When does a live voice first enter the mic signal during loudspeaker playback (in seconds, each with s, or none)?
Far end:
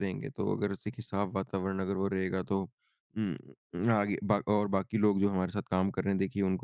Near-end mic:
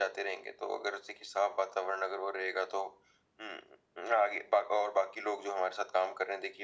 none